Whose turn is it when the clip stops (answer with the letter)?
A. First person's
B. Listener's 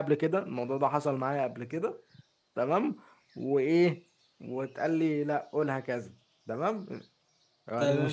B